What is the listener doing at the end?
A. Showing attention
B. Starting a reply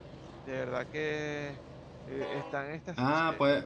B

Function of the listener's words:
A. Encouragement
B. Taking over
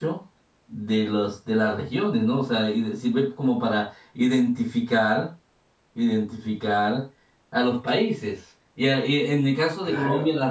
A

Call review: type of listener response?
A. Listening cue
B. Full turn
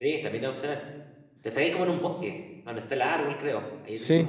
B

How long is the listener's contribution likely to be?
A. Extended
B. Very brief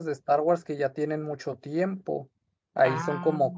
B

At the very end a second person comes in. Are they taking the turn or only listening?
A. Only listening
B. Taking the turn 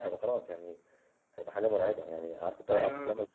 A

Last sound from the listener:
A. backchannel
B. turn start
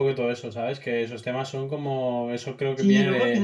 B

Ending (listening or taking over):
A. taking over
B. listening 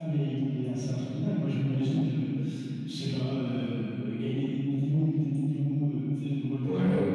B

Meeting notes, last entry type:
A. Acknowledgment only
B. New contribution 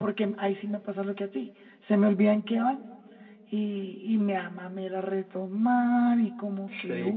B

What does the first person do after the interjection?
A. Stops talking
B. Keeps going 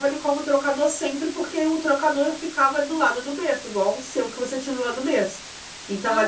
B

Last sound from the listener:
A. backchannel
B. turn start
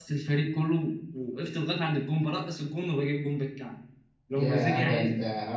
B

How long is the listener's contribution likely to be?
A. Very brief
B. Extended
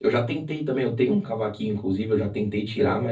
A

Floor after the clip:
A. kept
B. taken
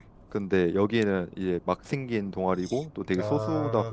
A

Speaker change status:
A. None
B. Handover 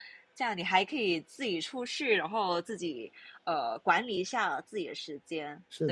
B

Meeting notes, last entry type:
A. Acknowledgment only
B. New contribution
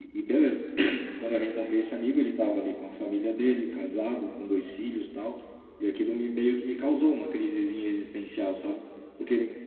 A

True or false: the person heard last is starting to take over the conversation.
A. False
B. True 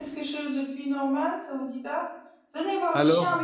A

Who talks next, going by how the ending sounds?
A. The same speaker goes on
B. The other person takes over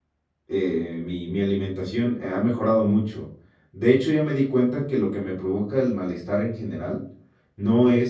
A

